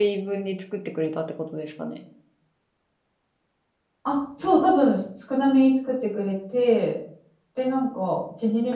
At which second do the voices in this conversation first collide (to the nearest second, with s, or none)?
none